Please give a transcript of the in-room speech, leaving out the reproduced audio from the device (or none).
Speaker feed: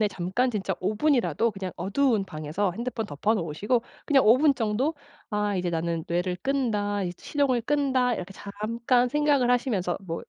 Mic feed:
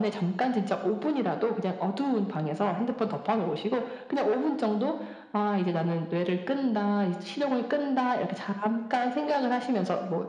none